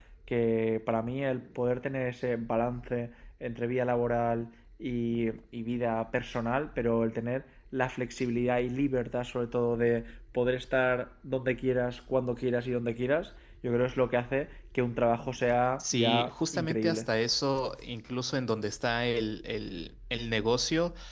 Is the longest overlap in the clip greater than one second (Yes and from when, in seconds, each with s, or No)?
Yes, from 15.8 s